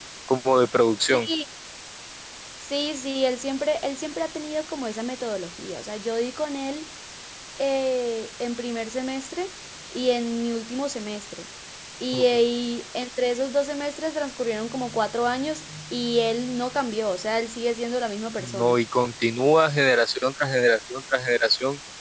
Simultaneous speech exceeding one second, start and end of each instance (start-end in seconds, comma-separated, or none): none